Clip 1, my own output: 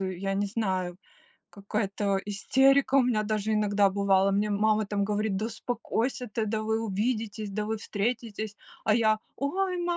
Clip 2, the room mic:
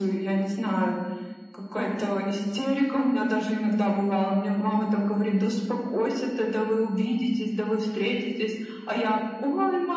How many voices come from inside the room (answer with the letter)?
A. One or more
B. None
B